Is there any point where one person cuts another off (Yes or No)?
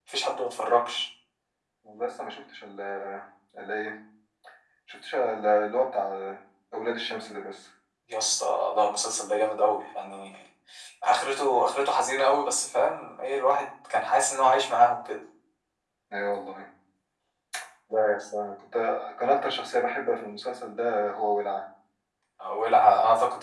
No